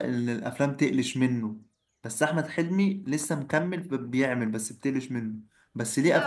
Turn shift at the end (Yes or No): Yes